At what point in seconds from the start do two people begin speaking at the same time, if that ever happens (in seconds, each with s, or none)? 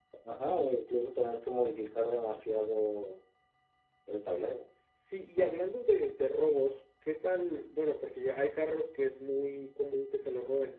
none